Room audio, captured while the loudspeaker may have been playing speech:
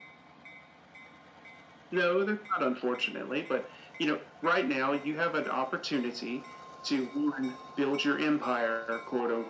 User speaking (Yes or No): No